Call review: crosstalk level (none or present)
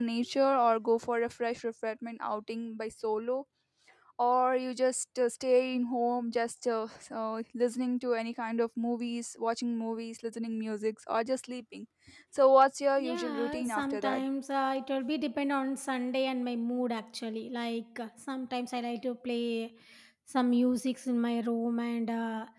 present